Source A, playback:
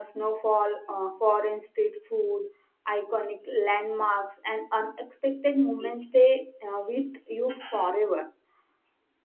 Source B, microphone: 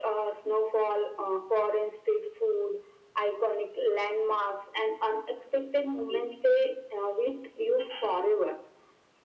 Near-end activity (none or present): none